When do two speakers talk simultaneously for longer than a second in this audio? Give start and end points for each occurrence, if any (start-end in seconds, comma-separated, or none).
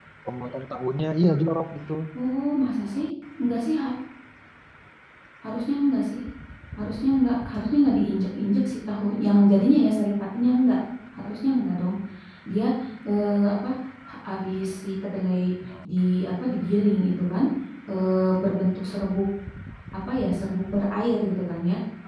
none